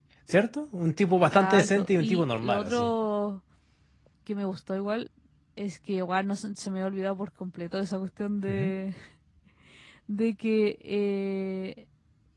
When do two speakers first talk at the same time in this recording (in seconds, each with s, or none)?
1.4 s